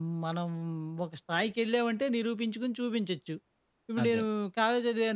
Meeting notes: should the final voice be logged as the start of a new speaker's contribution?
No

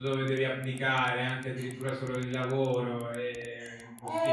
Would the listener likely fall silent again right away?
No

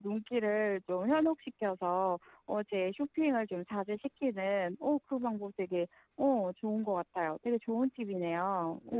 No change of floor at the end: No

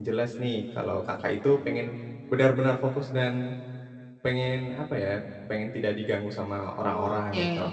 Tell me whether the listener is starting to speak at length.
Yes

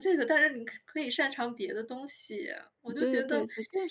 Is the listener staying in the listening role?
No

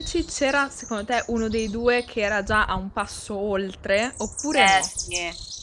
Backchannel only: No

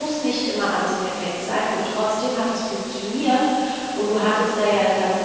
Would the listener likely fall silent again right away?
Yes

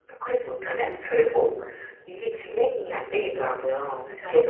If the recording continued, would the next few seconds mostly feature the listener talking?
No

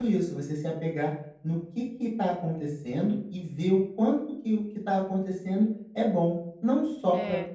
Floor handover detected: No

